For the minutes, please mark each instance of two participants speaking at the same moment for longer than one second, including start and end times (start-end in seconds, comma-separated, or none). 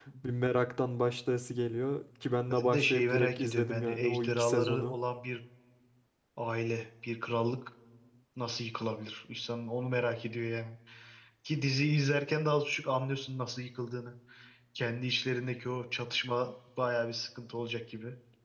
2.6-5.0